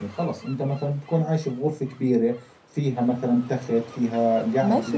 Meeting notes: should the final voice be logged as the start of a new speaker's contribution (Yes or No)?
Yes